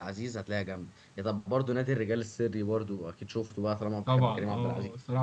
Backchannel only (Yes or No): No